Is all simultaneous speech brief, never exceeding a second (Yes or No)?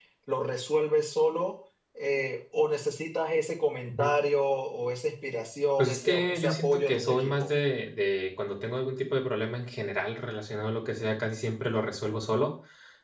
No